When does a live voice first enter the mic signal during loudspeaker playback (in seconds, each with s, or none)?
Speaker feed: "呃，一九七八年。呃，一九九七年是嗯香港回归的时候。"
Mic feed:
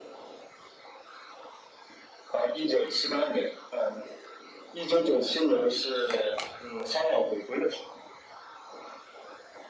none